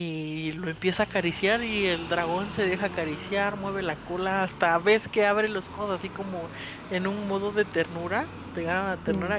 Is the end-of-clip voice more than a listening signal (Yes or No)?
No